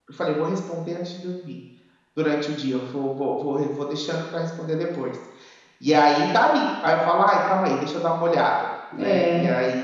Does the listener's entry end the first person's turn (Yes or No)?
Yes